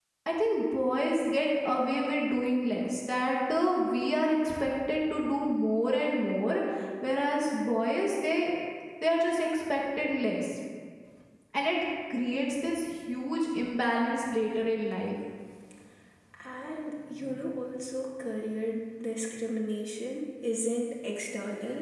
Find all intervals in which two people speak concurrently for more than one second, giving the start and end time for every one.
none

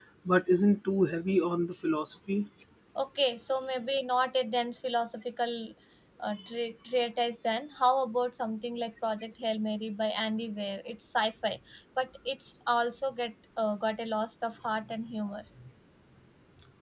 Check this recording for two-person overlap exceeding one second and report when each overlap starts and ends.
none

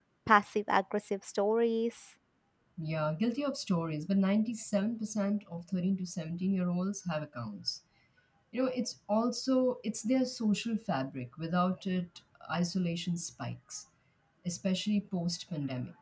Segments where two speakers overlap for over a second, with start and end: none

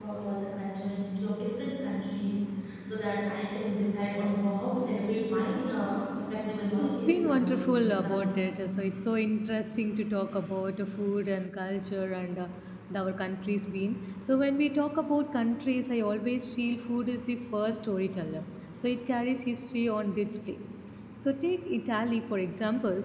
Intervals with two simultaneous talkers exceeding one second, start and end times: 6.8-8.4

